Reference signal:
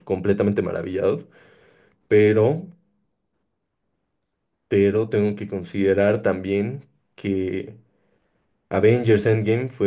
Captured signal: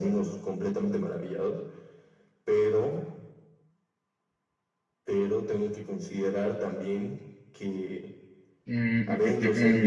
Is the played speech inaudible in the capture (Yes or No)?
No